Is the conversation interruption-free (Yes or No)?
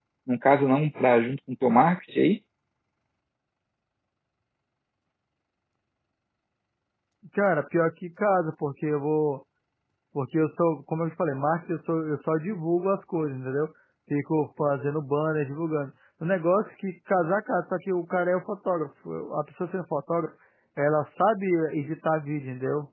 Yes